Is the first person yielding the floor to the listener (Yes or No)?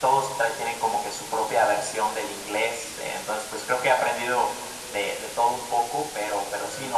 No